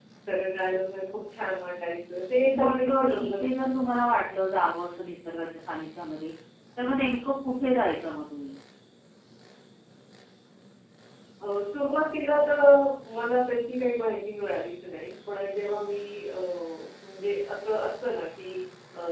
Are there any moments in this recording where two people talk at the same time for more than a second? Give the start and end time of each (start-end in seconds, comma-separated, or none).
2.6-3.8